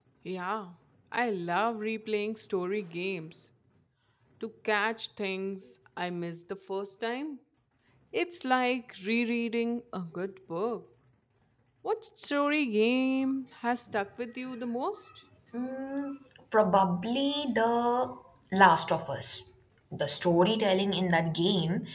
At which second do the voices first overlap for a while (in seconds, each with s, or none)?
none